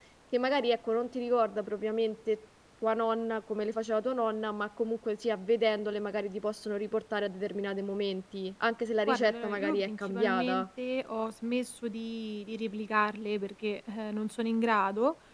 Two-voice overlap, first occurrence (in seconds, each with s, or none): 9.1 s